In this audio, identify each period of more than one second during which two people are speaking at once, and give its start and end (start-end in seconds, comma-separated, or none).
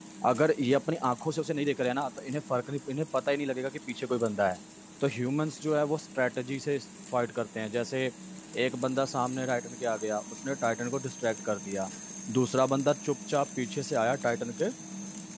none